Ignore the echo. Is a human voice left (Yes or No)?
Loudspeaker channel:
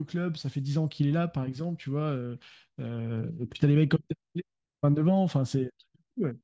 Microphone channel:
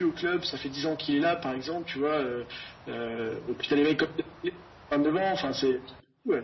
No